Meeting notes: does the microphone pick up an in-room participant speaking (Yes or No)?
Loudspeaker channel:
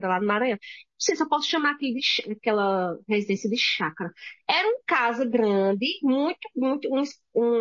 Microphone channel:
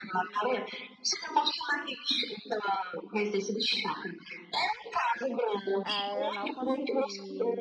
Yes